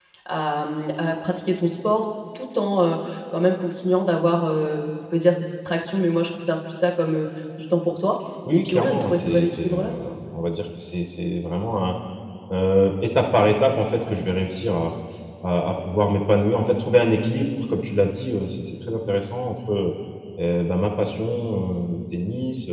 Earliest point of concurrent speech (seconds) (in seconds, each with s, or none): 8.4 s